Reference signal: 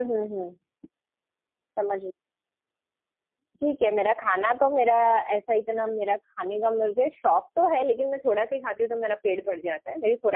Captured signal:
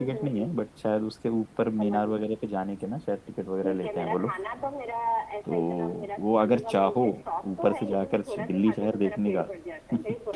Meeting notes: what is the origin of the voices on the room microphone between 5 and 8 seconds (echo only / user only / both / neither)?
both